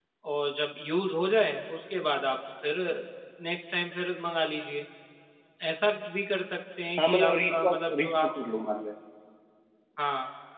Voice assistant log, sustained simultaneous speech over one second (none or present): present